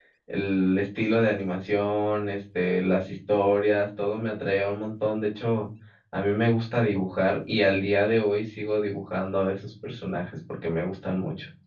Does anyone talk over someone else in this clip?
No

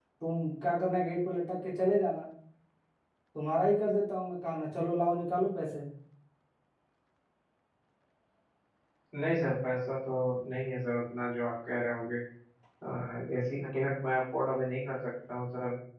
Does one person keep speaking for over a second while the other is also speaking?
No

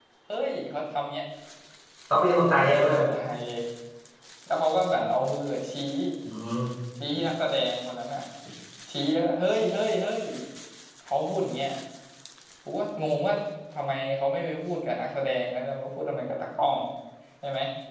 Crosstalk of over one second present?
No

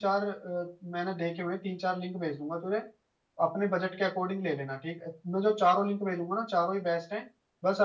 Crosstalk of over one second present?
No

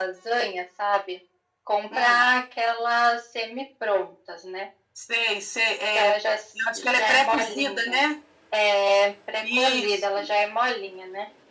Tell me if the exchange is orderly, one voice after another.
No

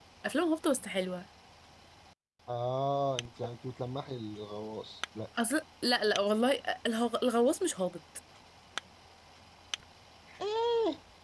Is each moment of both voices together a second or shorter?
Yes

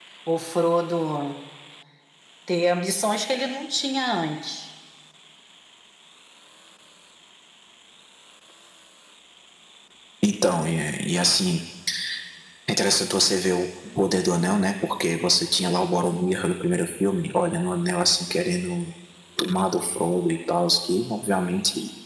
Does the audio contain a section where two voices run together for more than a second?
No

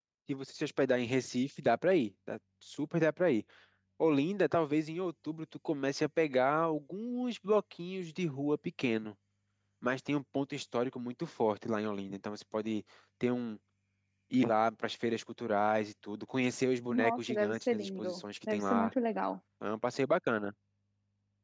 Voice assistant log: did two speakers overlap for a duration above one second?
Yes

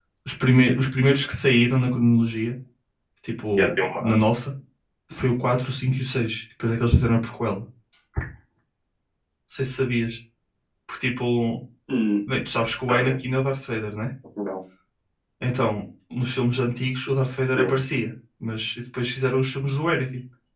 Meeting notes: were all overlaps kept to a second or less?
Yes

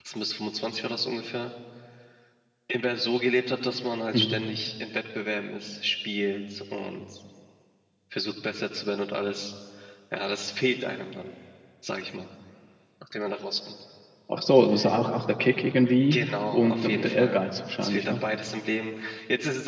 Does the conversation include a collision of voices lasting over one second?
Yes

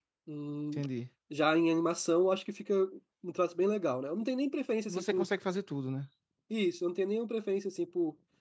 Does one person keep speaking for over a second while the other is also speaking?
No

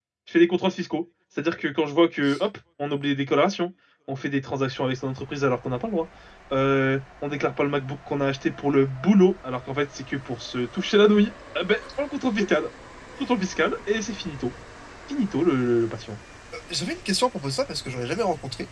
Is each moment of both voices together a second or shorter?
Yes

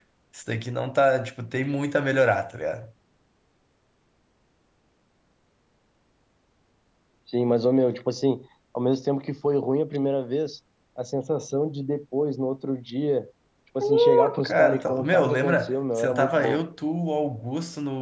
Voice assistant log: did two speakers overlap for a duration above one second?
Yes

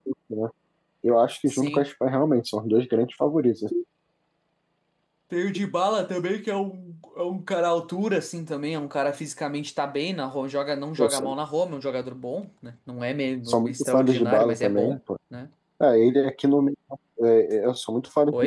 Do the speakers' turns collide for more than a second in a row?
Yes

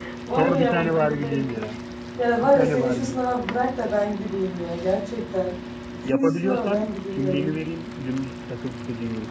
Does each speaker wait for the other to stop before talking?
No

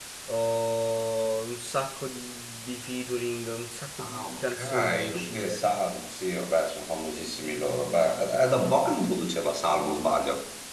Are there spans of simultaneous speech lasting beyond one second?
Yes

